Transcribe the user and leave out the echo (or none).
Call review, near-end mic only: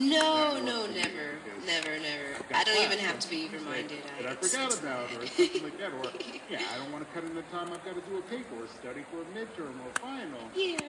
none